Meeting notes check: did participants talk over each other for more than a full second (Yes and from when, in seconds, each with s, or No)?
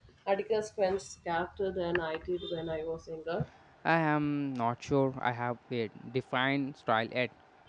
No